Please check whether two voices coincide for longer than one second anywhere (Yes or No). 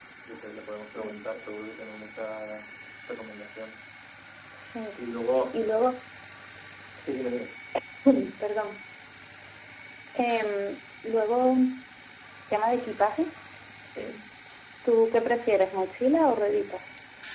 No